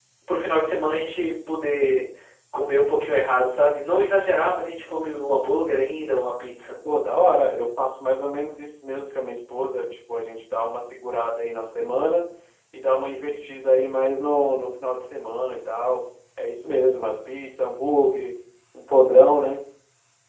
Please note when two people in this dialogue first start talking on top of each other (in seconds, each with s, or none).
none